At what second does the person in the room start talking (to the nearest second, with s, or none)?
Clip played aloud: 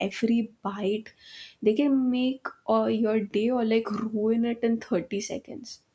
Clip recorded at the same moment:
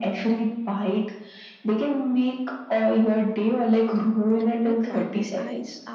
4 s